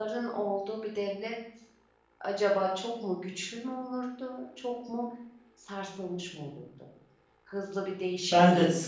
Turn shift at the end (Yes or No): Yes